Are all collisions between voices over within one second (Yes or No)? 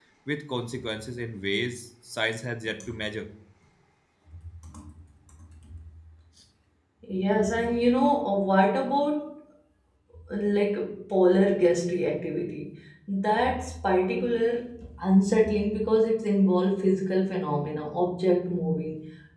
Yes